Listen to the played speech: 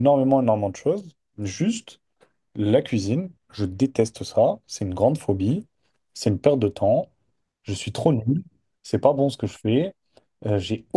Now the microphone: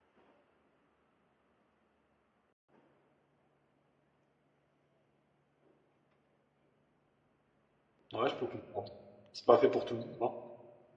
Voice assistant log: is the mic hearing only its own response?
No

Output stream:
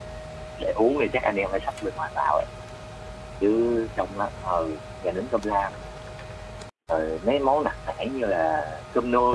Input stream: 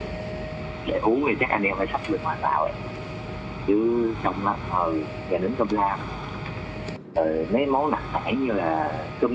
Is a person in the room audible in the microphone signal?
No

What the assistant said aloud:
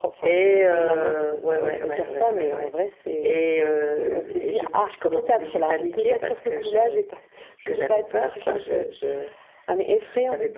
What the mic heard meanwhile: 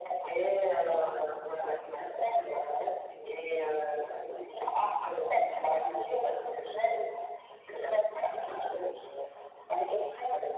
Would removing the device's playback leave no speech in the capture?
Yes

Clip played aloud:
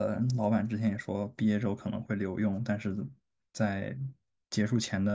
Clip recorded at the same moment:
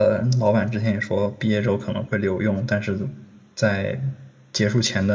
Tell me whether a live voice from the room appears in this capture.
No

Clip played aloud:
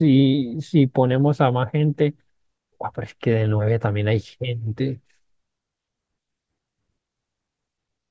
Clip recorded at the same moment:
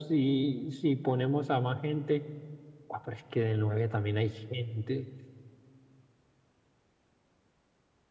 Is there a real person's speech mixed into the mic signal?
No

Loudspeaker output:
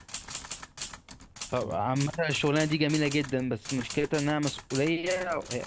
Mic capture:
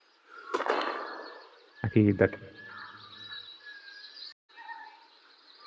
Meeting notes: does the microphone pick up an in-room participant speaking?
Yes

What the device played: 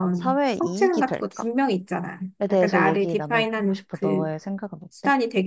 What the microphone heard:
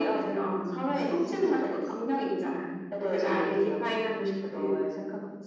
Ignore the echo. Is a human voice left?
No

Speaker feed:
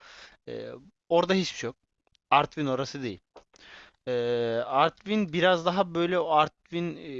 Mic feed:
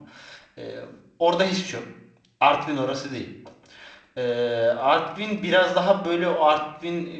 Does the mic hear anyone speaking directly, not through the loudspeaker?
No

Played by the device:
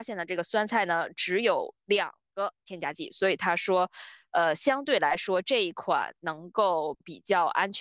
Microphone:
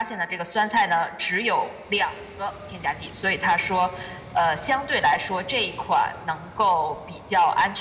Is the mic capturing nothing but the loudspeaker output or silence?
Yes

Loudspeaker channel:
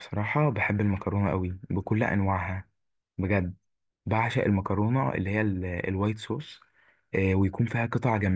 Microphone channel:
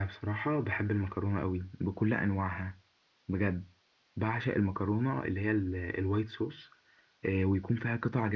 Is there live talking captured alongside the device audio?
No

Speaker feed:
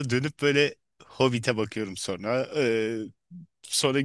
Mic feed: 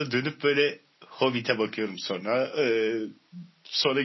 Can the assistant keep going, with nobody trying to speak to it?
Yes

